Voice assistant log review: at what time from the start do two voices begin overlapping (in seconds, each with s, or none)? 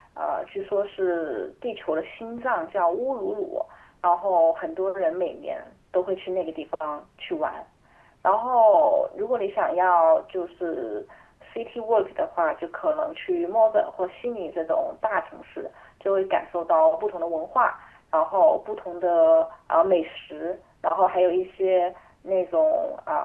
none